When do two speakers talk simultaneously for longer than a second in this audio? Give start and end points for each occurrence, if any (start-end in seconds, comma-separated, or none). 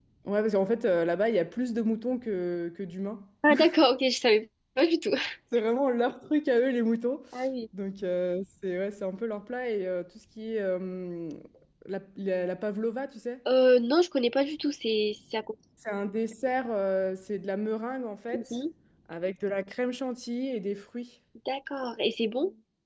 none